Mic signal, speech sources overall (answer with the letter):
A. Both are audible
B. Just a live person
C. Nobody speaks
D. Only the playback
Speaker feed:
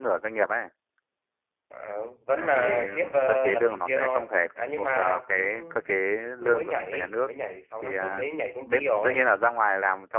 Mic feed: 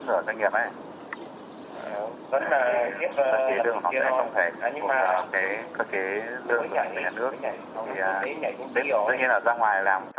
D